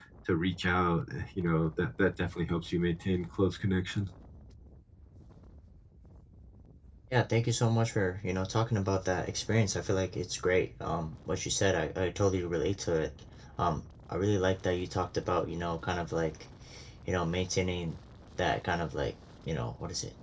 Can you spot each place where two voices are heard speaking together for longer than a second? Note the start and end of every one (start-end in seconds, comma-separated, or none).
none